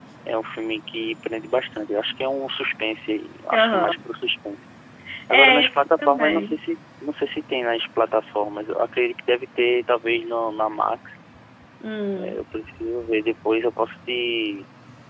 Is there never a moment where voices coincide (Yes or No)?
No